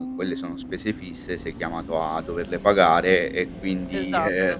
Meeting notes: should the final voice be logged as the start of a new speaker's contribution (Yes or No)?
No